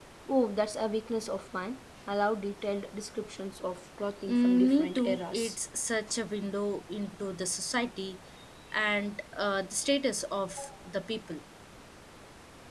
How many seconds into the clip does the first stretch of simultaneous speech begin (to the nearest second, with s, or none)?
4 s